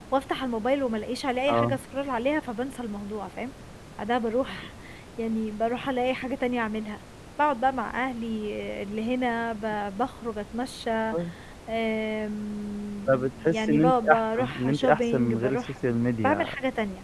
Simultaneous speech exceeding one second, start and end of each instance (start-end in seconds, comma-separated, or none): 13.1-15.6